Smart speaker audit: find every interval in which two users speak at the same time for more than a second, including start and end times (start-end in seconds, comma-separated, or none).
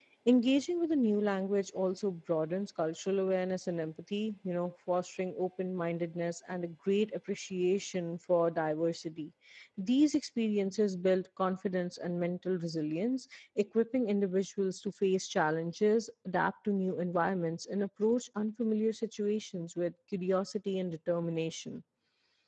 none